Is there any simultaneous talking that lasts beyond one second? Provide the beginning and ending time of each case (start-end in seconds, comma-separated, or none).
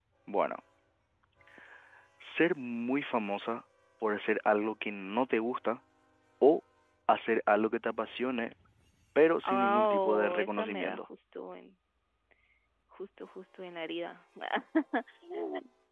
9.5-11.0